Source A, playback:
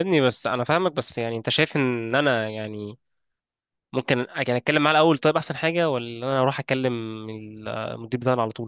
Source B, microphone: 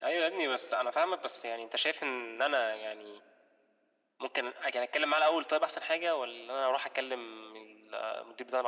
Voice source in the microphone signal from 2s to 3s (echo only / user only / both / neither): echo only